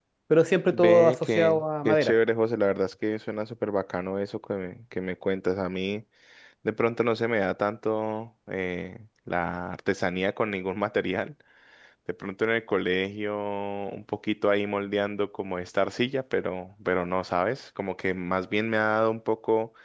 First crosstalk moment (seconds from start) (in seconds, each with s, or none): 0.7 s